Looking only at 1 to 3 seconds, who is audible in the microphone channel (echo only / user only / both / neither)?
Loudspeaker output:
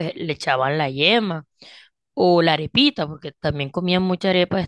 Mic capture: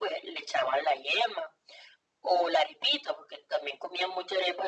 echo only